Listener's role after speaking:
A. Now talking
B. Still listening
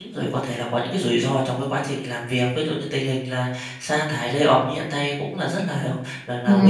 A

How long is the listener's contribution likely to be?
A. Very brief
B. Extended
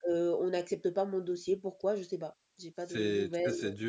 B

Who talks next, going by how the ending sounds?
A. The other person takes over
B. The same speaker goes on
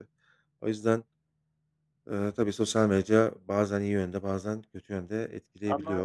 A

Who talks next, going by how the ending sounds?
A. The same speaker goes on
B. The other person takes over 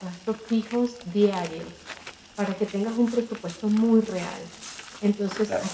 A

